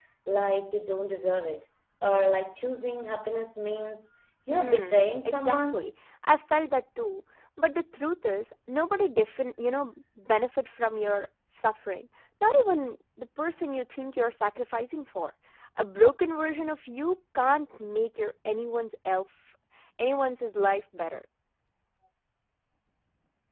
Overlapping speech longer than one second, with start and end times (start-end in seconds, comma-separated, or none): 4.5-5.8